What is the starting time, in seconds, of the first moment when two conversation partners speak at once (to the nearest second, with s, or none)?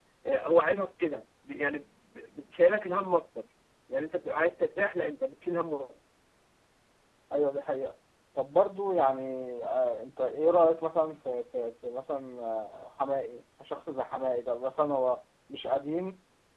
none